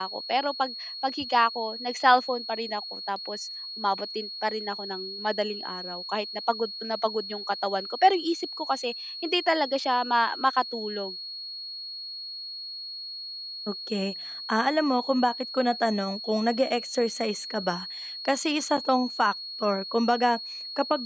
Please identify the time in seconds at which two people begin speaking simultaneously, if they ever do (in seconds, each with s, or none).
none